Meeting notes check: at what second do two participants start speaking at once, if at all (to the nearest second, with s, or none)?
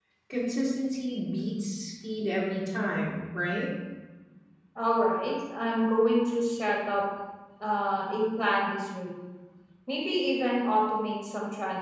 none